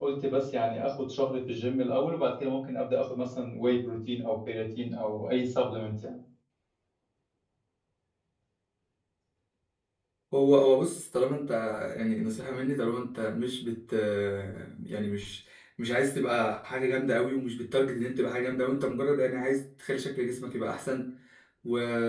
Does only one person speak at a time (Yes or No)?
Yes